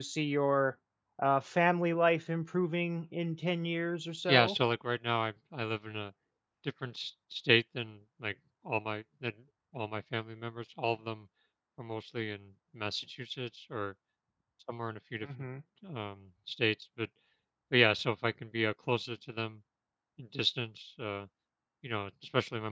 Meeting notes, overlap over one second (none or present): none